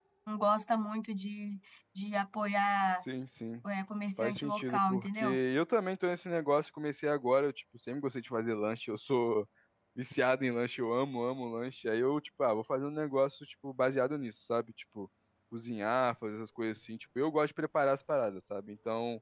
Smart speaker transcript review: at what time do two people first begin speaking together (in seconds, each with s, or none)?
4.2 s